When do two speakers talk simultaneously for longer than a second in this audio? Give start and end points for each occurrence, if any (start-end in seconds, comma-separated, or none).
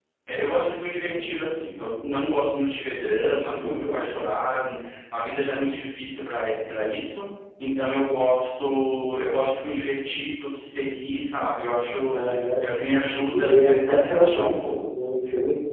13.3-14.9